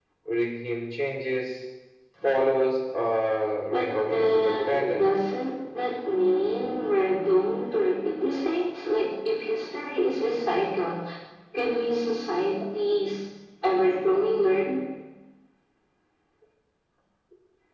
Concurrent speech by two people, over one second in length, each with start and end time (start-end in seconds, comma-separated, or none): 3.7-5.2